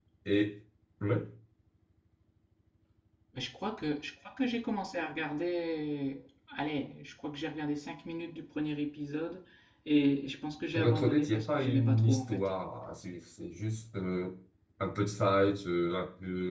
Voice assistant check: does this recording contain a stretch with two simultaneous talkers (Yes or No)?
Yes